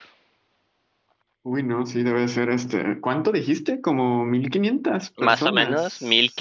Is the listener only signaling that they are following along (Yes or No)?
No